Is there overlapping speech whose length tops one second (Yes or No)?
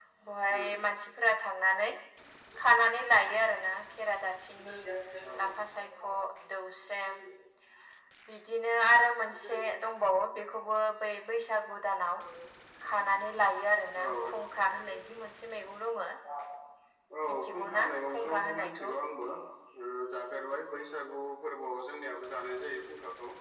Yes